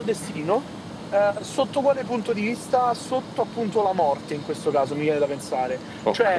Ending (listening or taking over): listening